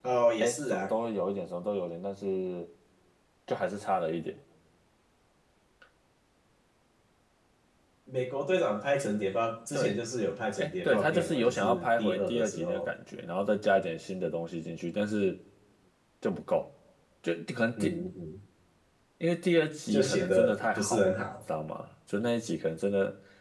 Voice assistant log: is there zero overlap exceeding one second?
No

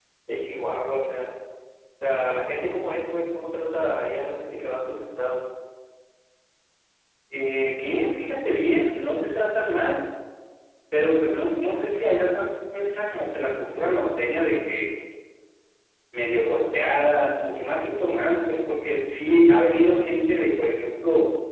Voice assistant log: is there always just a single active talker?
Yes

